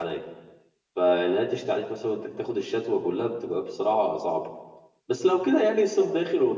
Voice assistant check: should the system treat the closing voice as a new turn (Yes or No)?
No